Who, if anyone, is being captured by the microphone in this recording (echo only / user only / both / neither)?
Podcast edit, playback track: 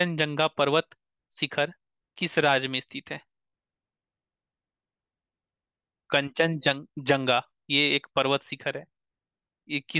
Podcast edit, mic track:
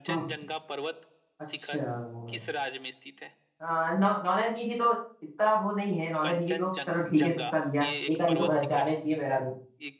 both